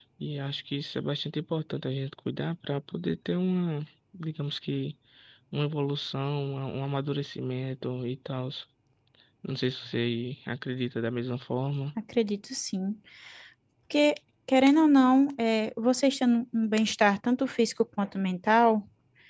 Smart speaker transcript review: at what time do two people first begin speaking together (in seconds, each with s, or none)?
none